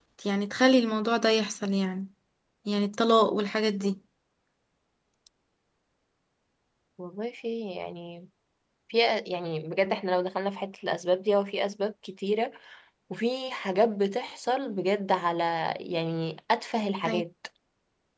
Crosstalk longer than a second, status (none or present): none